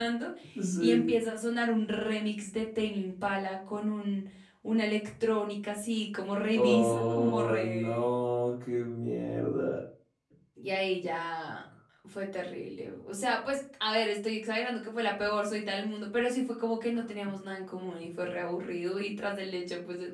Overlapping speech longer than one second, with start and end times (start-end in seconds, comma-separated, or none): 6.6-8.1